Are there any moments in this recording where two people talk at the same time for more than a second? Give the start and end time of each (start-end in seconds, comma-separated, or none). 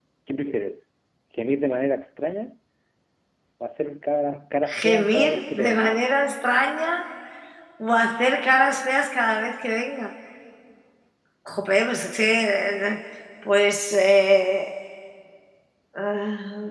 4.8-6.1